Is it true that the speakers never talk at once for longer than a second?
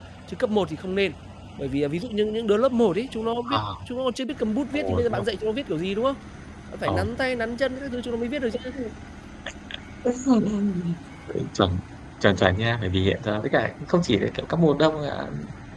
Yes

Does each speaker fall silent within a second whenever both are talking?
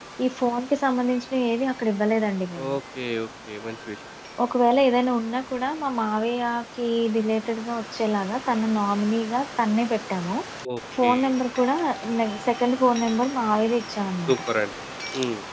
Yes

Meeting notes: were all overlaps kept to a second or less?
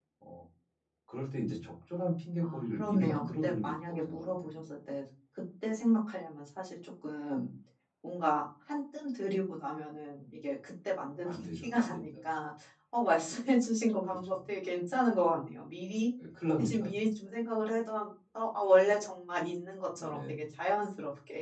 No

